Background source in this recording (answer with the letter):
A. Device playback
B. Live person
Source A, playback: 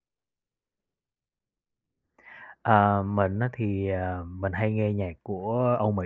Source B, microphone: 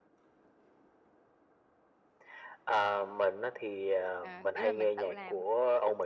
B